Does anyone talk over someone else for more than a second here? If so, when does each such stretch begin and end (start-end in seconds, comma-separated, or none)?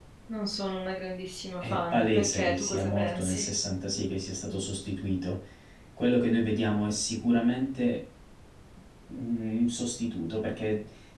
1.6-3.4